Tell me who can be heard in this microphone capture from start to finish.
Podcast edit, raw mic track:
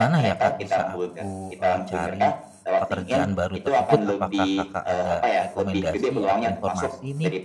both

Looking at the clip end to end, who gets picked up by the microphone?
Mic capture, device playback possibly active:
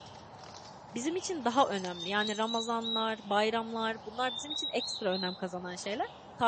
user only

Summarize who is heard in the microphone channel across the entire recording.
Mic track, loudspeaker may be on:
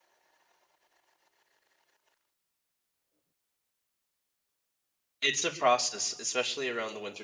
user only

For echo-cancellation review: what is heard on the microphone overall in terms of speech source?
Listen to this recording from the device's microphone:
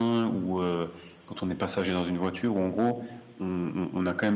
user only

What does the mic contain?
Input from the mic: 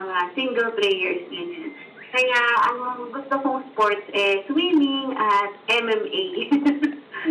echo only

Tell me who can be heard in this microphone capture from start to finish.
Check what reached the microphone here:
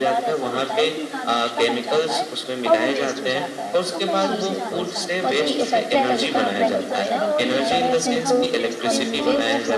both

